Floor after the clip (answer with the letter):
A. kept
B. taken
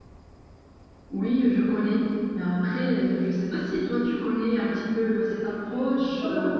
B